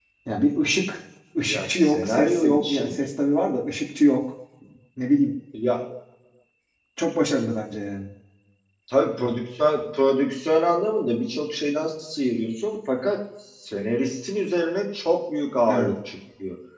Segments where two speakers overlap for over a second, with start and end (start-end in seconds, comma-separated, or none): 1.4-3.0